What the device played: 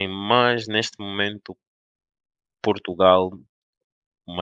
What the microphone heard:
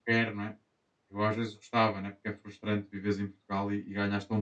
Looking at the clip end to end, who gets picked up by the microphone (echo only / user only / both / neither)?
user only